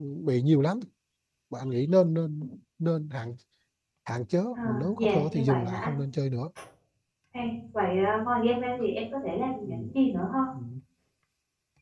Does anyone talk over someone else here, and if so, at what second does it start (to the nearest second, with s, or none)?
5 s